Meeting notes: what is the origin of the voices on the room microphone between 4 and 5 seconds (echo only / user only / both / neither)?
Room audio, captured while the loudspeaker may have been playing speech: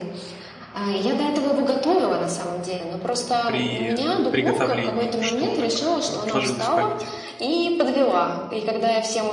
both